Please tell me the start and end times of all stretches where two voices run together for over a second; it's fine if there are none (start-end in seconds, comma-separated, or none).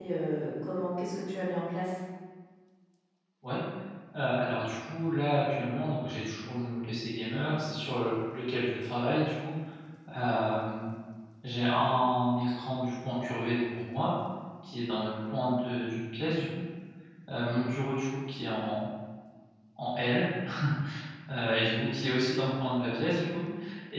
none